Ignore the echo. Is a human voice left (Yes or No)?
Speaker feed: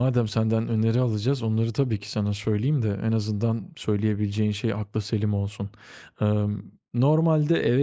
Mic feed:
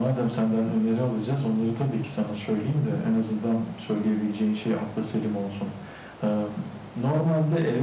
No